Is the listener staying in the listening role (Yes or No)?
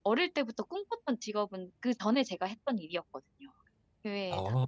No